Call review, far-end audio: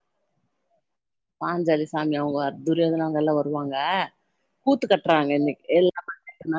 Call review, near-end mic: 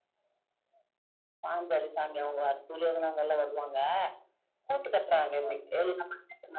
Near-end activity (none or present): none